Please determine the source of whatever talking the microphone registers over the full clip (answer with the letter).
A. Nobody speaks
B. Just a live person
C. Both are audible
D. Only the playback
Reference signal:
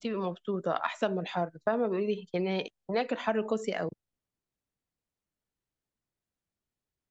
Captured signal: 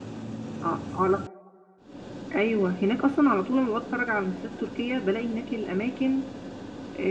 B